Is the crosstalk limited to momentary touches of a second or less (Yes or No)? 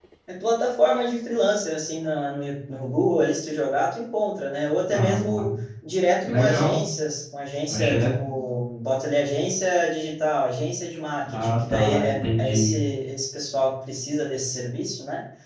No